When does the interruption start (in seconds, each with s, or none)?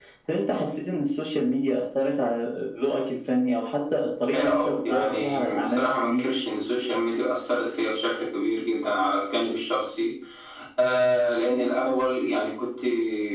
4.3 s